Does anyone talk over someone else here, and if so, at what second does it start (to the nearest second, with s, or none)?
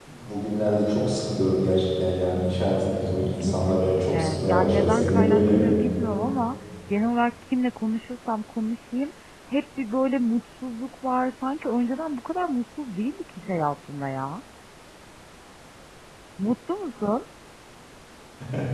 3 s